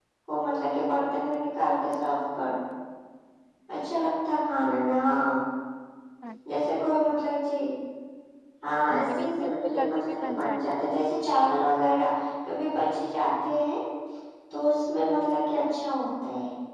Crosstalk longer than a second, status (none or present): present